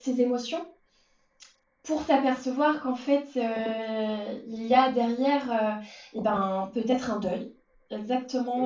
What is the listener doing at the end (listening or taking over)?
listening